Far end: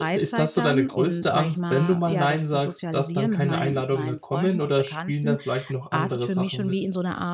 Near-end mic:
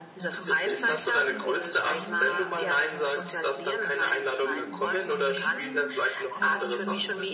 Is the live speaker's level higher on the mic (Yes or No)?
No